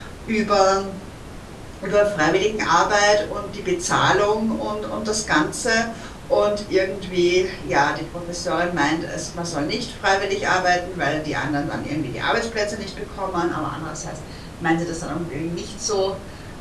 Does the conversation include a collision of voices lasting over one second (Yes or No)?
No